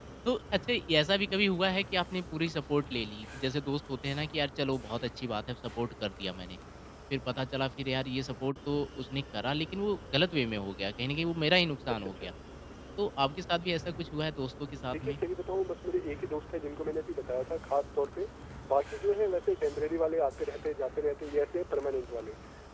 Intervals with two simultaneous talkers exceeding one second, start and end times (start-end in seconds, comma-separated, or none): none